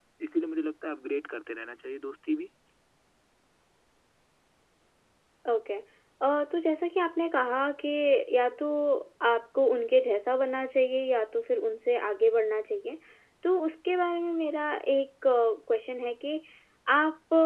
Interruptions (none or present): none